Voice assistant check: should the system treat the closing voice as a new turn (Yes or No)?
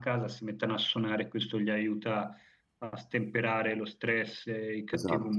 No